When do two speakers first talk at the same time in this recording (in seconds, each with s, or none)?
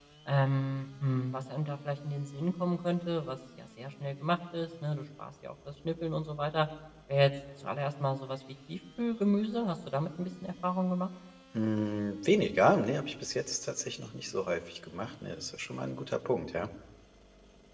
none